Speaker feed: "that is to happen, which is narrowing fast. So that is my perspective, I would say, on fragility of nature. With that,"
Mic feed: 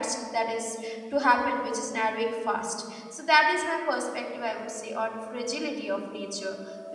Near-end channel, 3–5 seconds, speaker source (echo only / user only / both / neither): echo only